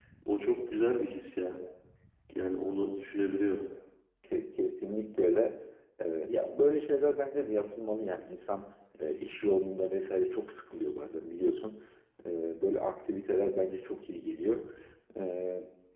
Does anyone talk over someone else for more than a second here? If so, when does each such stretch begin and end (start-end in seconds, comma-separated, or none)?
none